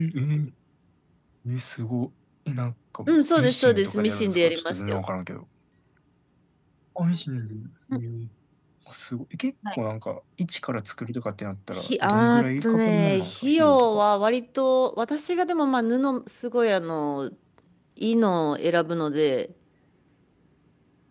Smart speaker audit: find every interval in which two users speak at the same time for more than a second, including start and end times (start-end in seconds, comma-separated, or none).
3.1-5.0, 11.8-14.0